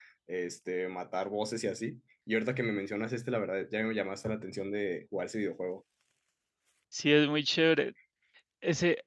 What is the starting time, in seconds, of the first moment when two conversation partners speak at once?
none

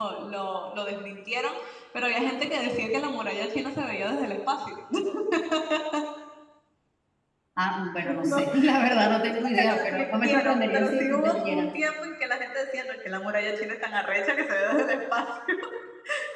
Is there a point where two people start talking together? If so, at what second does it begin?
8.0 s

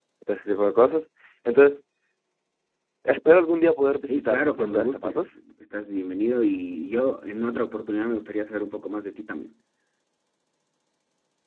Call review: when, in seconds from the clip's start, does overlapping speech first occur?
4.1 s

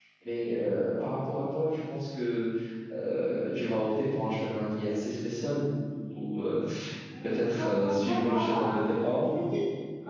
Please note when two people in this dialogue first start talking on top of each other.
7.2 s

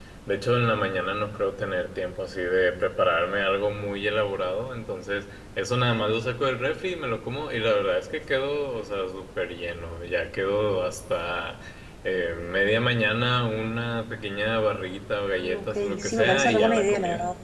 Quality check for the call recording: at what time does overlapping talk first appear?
15.3 s

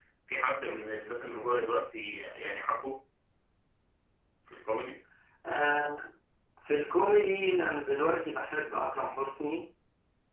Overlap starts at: none

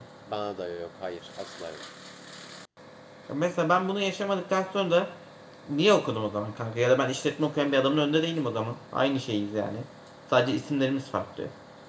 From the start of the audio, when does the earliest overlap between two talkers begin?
none

